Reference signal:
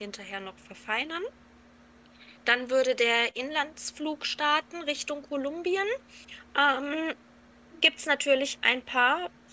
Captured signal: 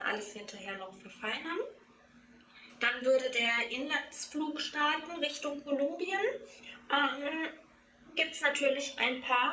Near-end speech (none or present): none